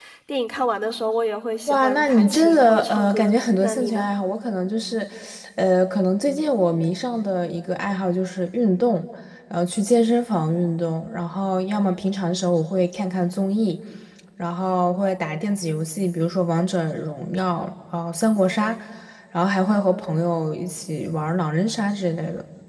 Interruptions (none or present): present